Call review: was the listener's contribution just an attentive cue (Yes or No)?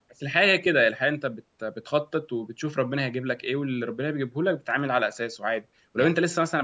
Yes